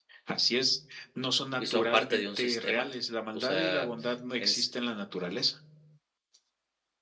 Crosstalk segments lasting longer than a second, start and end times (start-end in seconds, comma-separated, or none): 1.6-2.9